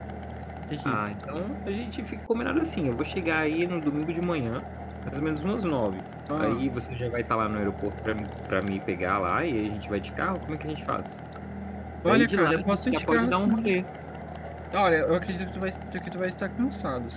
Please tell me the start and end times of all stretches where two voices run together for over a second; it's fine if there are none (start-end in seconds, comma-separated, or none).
12.1-13.7